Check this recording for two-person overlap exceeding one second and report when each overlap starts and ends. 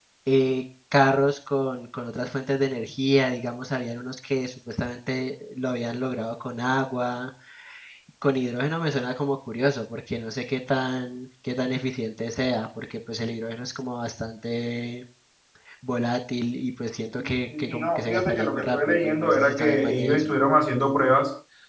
17.6-20.3

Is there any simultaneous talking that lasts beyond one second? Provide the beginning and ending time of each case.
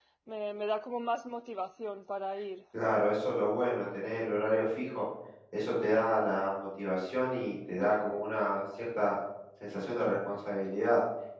none

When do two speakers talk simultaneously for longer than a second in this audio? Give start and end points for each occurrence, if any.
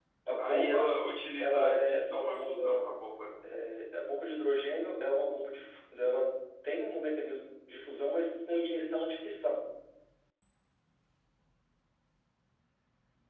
1.4-2.9

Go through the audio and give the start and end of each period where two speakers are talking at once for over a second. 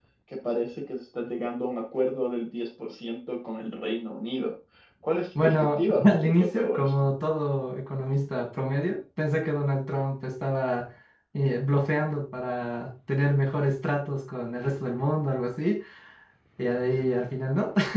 5.4-6.9

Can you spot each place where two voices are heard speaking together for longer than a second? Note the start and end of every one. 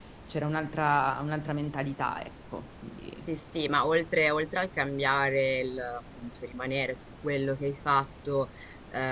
none

